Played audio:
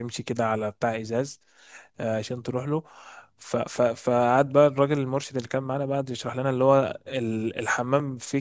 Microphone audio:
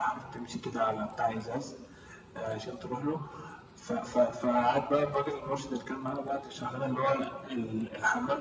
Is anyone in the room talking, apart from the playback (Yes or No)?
No